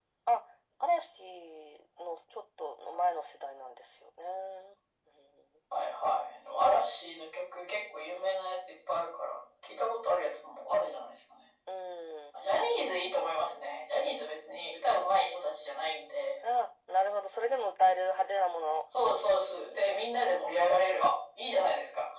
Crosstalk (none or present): none